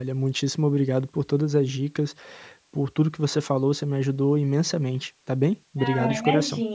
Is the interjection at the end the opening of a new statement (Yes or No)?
Yes